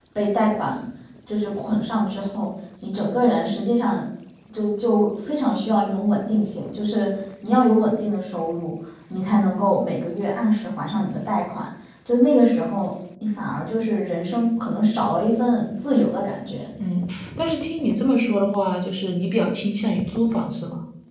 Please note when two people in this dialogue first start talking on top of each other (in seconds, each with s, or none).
none